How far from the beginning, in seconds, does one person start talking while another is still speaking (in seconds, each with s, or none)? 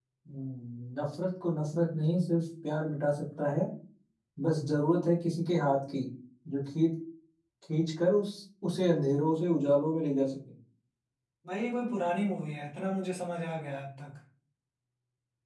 none